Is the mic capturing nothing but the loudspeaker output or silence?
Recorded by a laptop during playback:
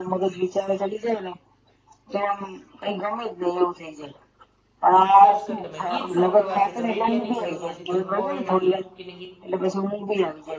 No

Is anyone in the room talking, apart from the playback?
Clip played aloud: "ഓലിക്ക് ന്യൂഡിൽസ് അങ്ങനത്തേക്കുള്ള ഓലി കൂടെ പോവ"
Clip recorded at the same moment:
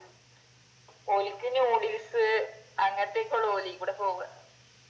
No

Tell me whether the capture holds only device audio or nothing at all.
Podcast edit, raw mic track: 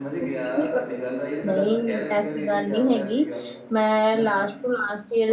No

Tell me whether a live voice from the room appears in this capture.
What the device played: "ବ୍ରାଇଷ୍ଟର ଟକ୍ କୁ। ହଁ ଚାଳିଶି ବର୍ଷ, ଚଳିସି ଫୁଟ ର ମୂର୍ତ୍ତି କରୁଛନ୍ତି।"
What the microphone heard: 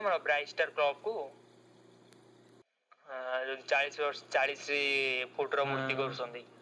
Yes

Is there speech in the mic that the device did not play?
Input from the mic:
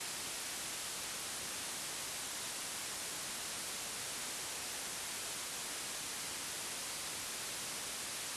No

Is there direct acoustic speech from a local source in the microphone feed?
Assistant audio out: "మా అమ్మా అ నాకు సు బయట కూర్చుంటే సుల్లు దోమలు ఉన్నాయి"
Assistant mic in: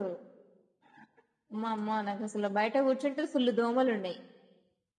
No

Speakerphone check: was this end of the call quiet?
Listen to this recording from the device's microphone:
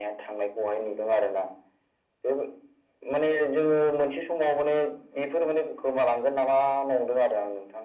Yes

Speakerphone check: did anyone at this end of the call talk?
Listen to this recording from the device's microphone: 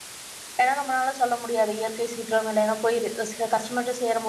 Yes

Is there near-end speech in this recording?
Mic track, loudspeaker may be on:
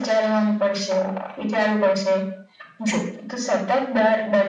No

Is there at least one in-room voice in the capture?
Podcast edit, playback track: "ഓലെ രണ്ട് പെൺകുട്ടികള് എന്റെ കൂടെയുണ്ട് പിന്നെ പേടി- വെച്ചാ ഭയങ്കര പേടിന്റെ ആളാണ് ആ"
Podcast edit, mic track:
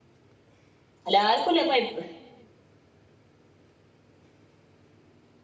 Yes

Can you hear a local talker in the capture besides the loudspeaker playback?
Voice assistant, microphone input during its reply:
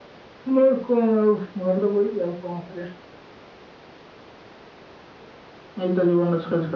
No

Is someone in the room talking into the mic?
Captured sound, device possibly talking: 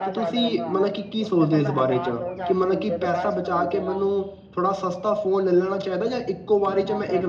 Yes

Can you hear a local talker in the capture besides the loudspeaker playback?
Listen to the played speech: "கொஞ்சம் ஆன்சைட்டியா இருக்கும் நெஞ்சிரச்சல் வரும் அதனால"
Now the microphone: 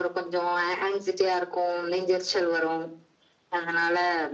No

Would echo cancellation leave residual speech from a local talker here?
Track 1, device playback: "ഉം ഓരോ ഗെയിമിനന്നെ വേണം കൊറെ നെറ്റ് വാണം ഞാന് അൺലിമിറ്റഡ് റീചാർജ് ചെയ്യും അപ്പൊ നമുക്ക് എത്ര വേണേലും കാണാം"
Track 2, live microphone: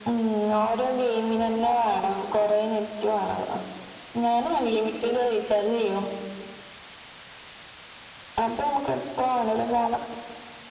No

